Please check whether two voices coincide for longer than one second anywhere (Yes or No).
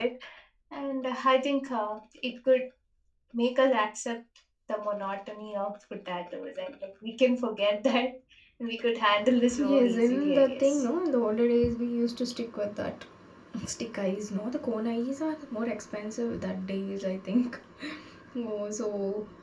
Yes